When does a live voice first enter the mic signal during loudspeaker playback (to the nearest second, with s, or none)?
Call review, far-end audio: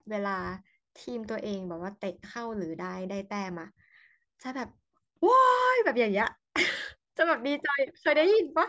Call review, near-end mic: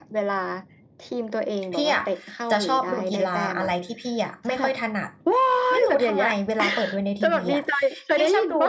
2 s